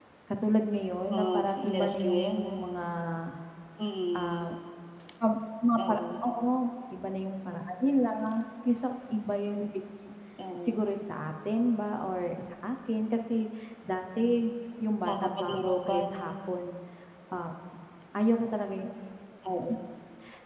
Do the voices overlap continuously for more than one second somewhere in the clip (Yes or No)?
Yes